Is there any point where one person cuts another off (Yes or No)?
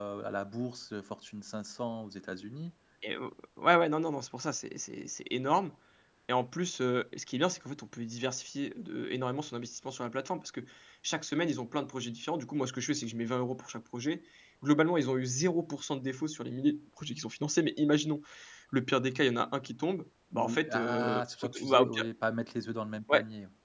Yes